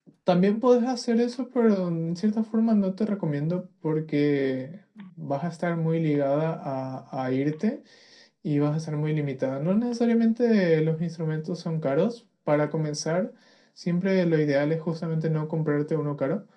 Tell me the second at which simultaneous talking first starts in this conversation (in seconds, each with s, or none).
none